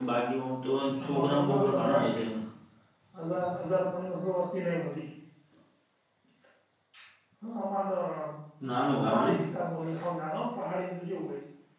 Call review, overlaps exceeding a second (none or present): present